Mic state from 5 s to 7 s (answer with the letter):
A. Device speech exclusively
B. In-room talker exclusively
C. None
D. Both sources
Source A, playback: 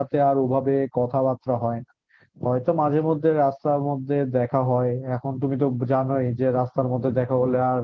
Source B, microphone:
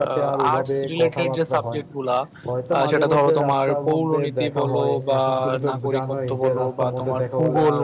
D